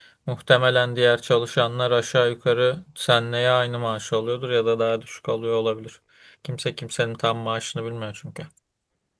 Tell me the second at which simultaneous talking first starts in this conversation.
none

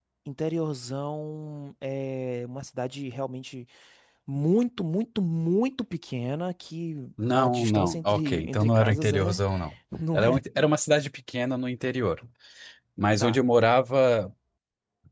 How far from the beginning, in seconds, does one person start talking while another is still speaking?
7.3 s

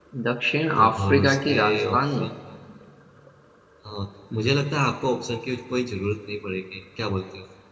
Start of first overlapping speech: 0.8 s

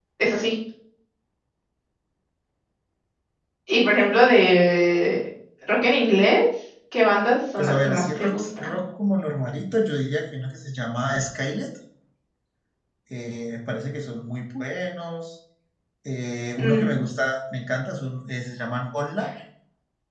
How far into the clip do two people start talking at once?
7.6 s

